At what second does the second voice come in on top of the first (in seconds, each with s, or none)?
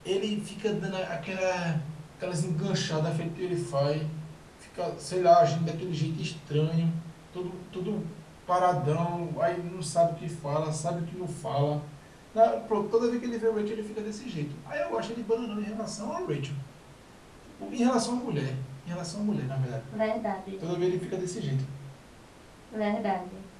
none